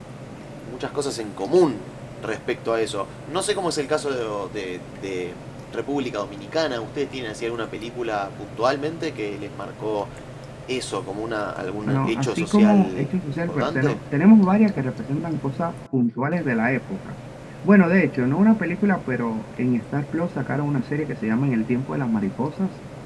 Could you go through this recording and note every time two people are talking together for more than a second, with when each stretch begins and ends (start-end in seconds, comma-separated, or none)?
11.8-14.0